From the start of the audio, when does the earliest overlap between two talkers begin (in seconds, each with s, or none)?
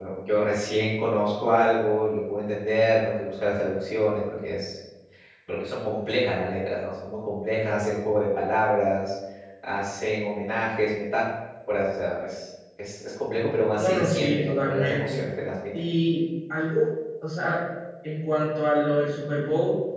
13.8 s